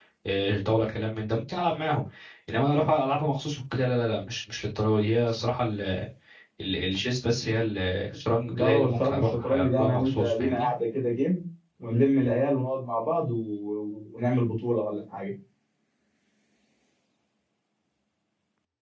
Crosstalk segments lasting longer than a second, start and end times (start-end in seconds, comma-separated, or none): 8.4-10.7